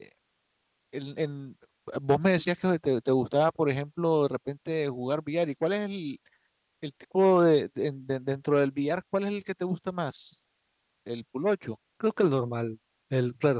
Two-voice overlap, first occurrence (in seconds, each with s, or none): none